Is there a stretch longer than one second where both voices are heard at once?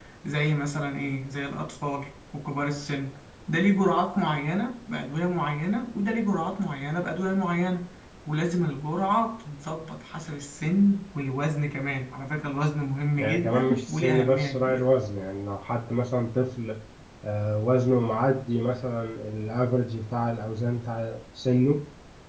Yes, from 13.2 s

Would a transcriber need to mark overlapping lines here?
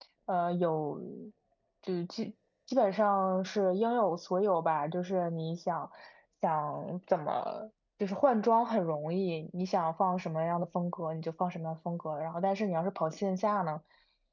No

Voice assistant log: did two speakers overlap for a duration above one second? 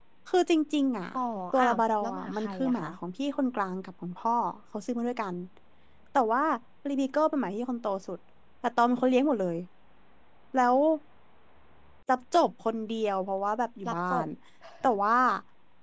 Yes, from 1.6 s

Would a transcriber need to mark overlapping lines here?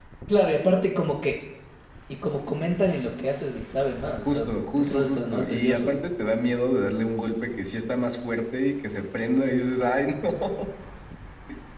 Yes, from 4.2 s

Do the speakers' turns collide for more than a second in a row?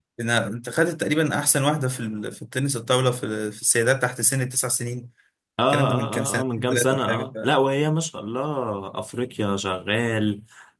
Yes, from 5.7 s

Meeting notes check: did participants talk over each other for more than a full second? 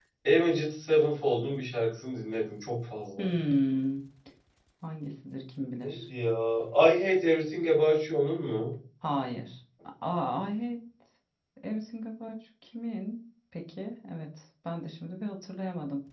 No

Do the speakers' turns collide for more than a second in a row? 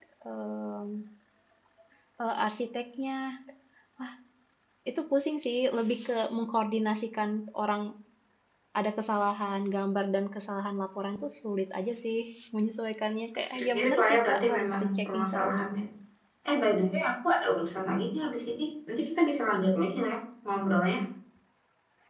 Yes, from 13.5 s

